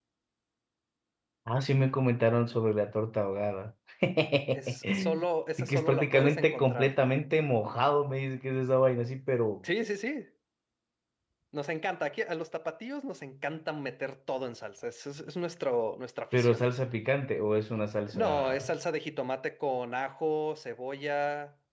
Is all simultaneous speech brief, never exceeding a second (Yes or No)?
No